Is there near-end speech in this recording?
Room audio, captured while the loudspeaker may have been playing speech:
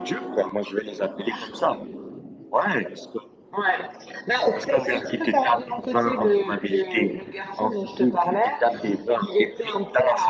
No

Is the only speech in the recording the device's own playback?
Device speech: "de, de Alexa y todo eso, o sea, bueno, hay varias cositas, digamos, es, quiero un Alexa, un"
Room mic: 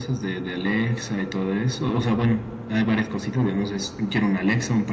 Yes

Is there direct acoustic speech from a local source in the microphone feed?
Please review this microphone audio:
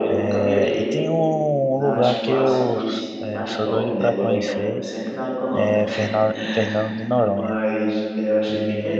Yes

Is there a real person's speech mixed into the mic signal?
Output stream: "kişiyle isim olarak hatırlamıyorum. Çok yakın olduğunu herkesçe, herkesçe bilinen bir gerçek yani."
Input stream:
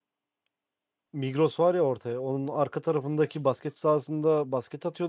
Yes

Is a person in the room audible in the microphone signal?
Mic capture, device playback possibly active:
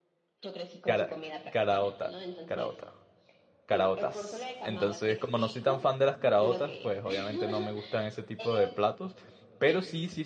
Yes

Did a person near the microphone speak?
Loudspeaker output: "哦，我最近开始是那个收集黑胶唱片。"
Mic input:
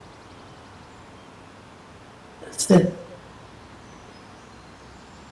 Yes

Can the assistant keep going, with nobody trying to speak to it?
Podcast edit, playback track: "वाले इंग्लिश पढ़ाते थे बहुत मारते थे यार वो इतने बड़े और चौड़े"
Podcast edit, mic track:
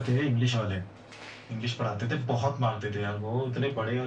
Yes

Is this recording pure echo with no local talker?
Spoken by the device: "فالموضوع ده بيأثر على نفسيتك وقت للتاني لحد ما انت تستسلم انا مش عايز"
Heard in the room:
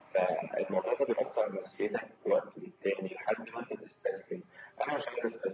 Yes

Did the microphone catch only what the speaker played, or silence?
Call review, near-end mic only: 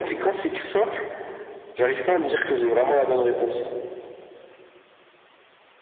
Yes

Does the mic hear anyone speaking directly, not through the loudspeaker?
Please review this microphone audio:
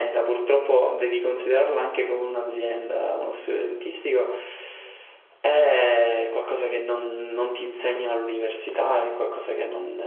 Yes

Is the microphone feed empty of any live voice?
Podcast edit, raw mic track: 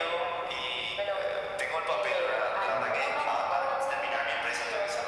No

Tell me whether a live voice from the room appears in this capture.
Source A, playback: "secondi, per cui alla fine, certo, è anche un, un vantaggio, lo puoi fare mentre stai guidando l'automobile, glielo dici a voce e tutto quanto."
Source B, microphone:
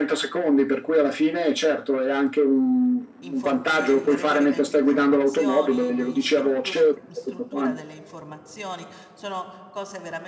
Yes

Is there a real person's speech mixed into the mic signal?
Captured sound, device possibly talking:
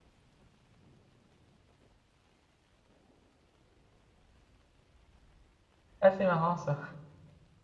Yes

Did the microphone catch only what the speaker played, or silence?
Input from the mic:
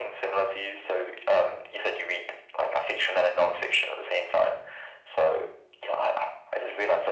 Yes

